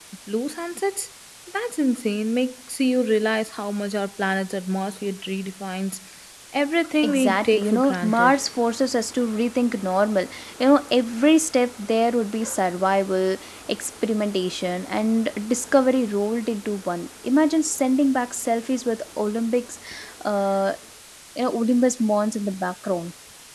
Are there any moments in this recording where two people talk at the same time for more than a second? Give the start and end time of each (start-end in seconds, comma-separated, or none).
7.0-8.3